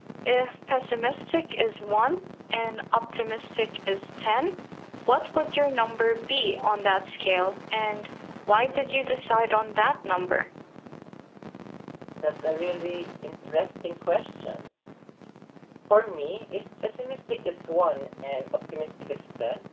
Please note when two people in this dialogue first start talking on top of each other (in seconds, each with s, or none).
none